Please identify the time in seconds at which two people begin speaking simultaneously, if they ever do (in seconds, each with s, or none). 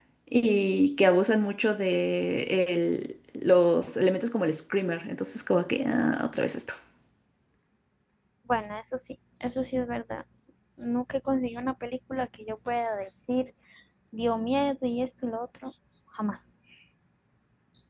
none